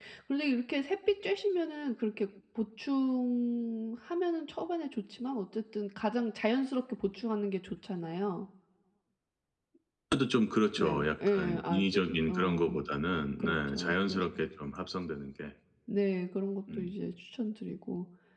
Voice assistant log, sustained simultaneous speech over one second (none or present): present